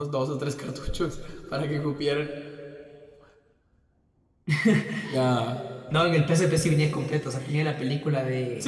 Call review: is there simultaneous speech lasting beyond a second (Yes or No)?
No